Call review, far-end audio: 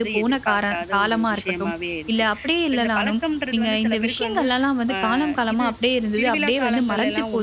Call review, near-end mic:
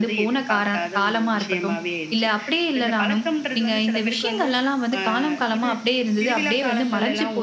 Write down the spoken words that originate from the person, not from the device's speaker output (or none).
none